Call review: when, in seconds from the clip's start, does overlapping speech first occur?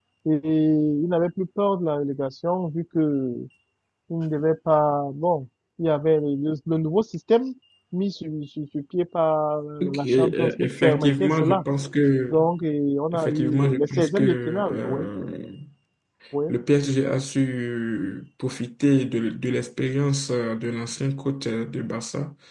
9.8 s

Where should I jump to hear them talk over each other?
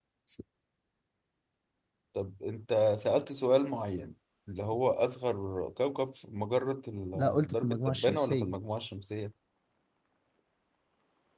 7.2 s

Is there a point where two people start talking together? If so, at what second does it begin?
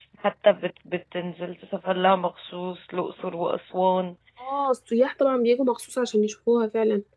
none

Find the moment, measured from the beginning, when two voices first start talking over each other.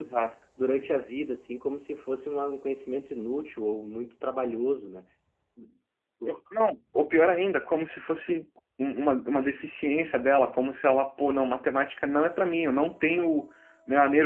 none

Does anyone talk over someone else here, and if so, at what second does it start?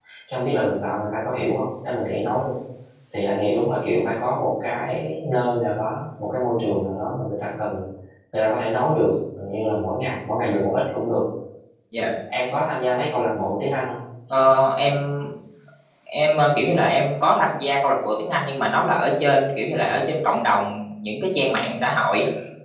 none

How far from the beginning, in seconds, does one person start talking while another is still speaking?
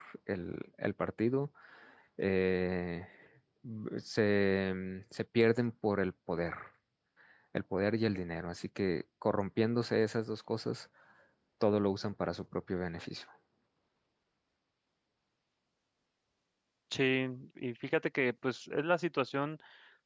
none

